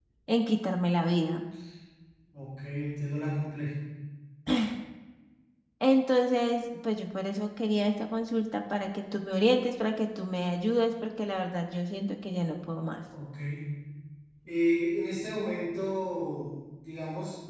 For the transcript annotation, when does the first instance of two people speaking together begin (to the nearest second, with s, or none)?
none